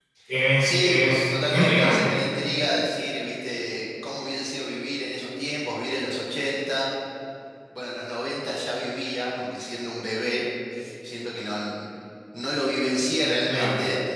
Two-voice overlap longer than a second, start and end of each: 0.6-2.1

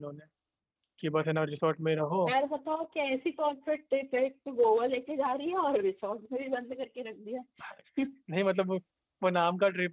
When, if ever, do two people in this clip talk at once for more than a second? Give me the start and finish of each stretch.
none

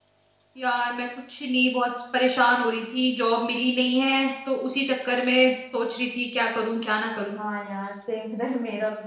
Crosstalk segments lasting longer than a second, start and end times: none

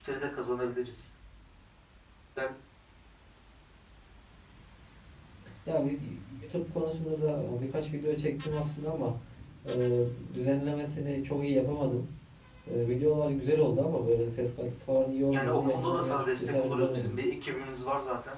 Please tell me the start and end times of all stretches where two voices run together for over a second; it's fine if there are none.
15.3-17.1

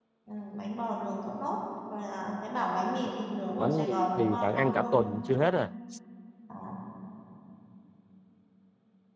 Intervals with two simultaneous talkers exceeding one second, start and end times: 3.6-4.9

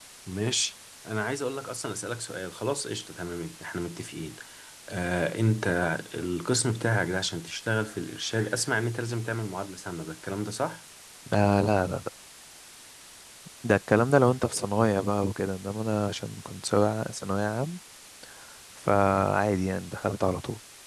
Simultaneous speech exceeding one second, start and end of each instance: none

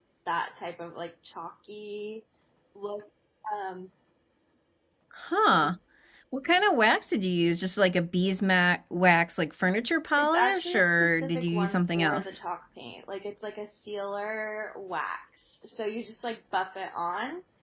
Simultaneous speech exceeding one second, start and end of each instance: 10.2-12.4

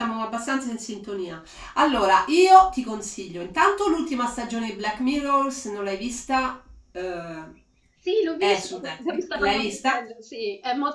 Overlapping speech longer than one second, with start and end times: 8.4-10.0

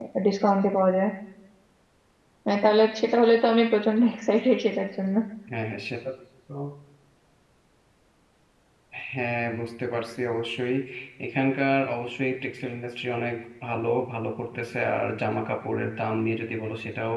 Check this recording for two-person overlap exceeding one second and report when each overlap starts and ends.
none

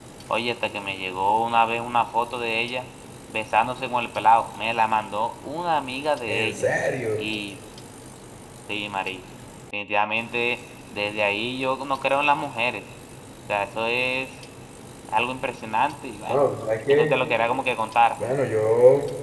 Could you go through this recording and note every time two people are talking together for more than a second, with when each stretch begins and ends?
none

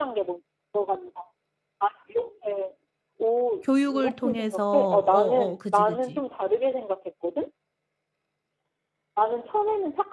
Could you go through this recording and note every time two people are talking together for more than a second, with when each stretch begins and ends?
3.9-6.2

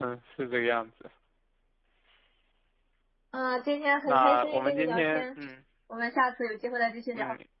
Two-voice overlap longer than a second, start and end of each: 4.0-5.3

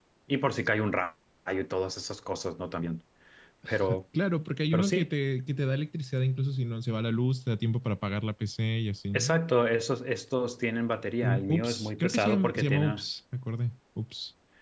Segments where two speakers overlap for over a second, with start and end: 11.2-13.0

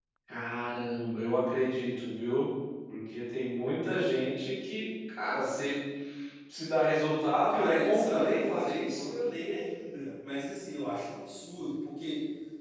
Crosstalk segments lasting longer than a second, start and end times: 7.5-9.1

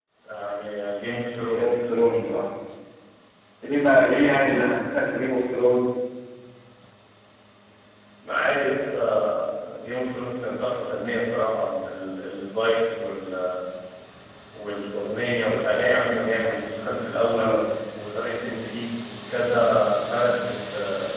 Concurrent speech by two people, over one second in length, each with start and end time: none

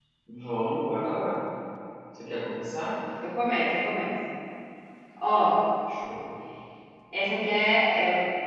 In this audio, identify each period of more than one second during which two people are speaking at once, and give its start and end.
none

